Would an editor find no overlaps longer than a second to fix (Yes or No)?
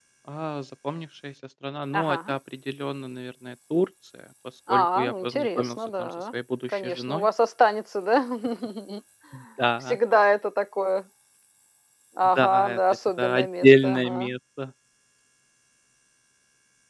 No